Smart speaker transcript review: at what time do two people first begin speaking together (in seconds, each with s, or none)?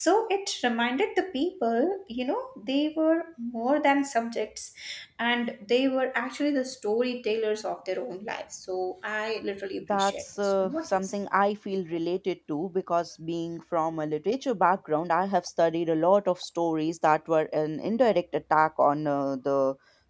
9.9 s